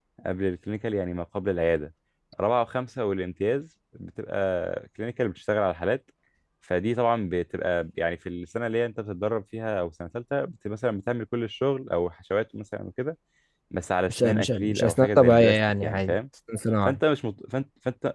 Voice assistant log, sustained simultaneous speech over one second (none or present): present